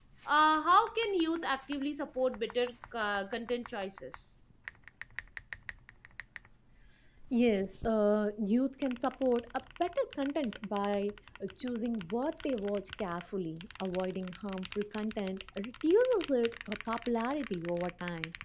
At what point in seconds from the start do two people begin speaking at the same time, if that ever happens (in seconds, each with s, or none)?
none